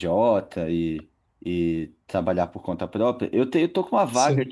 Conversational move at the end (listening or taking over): listening